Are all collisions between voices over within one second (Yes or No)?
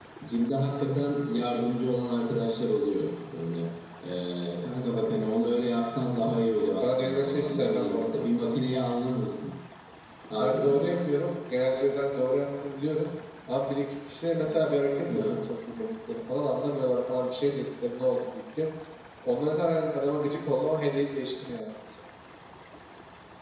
No